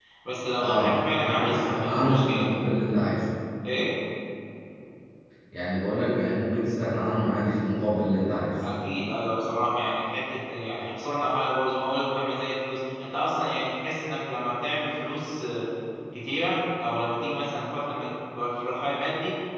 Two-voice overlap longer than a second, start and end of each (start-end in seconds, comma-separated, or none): 0.6-2.5